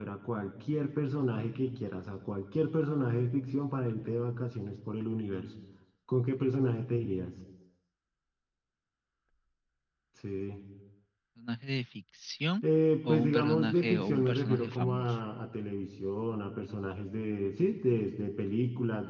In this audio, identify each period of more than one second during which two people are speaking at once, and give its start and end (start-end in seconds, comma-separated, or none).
13.0-15.2